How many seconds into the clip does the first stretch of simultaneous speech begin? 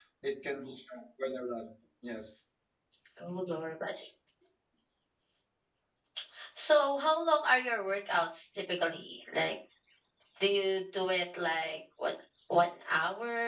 none

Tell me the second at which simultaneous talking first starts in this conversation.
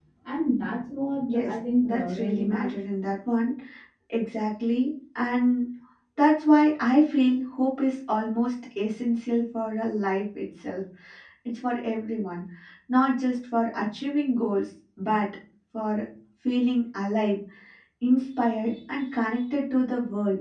1.2 s

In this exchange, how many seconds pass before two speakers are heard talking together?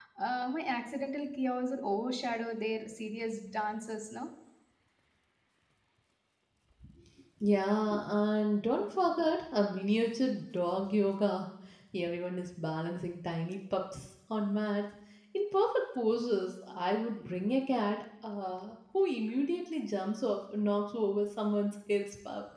none

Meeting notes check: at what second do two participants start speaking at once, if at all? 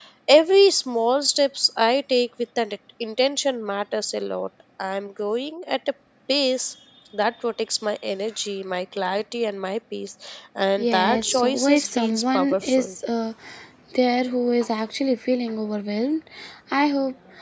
10.8 s

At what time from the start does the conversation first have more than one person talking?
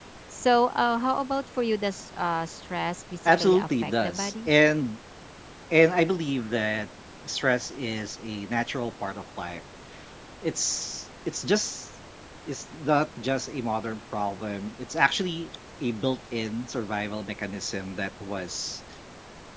3.2 s

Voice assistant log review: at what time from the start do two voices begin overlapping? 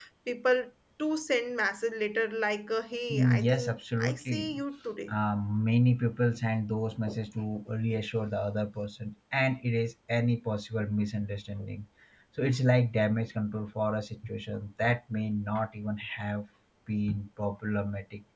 3.1 s

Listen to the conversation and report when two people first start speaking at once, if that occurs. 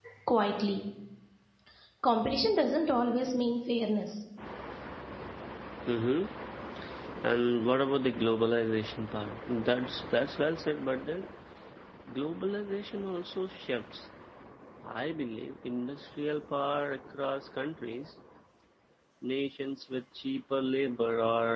none

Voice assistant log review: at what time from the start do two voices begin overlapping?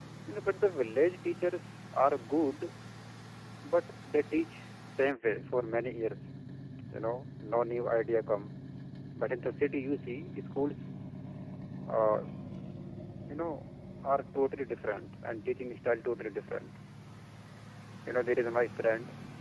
none

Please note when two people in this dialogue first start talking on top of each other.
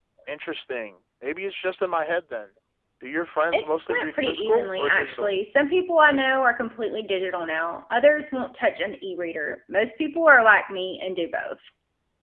3.5 s

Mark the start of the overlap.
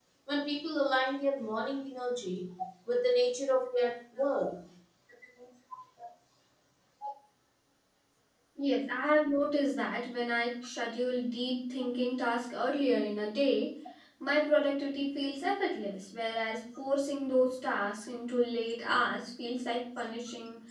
none

